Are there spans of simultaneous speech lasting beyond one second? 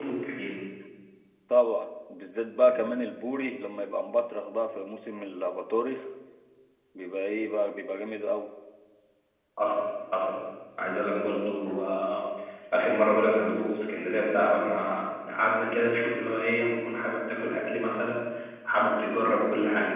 No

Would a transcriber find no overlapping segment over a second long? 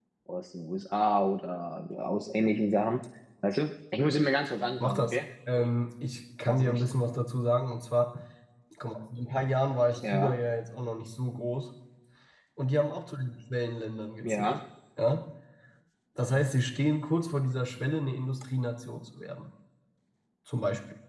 Yes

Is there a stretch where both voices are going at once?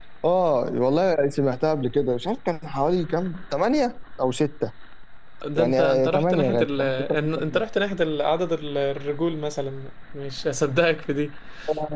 Yes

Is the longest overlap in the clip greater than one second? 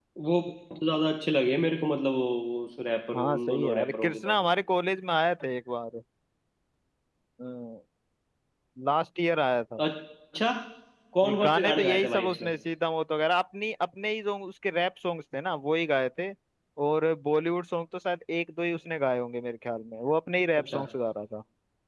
Yes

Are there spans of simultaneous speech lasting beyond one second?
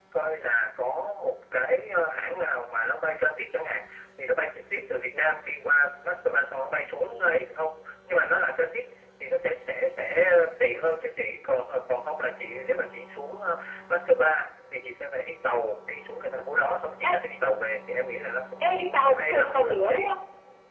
Yes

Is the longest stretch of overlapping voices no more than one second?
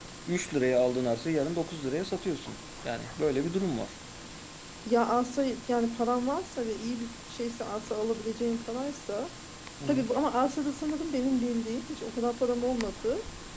Yes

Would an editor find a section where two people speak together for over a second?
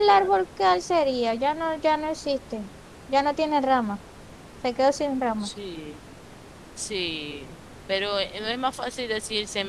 No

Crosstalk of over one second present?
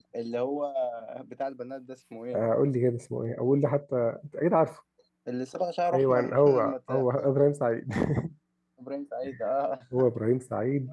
Yes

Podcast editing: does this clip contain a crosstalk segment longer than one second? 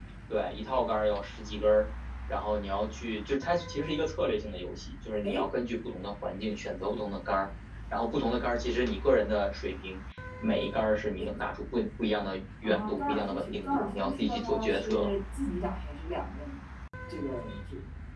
Yes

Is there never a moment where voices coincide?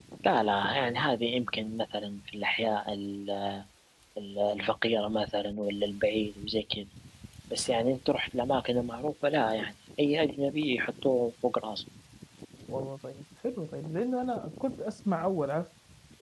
Yes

